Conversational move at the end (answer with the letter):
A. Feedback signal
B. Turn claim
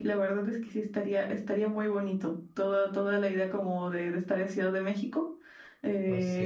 A